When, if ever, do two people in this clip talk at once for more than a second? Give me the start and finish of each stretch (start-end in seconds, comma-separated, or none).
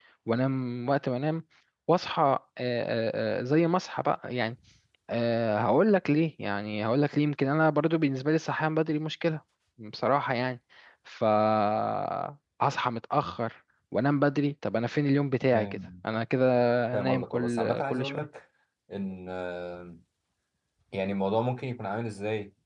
17.0-18.3